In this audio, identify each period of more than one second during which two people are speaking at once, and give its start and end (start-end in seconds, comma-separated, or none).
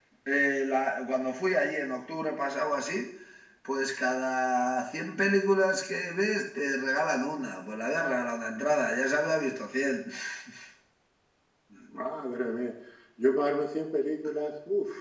none